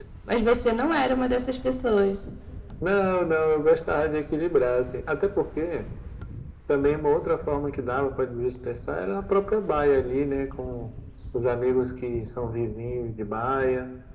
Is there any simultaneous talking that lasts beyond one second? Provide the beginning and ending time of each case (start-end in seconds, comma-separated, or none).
none